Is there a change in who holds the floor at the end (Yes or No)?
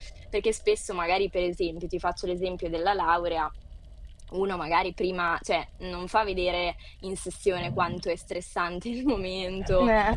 No